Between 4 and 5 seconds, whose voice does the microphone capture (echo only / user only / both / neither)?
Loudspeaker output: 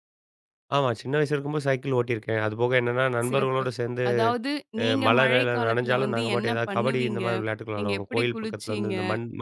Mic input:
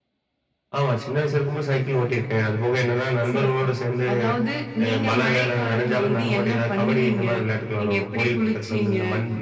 echo only